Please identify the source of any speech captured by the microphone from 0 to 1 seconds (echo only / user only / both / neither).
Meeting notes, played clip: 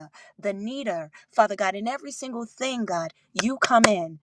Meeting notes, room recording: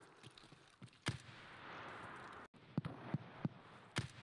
neither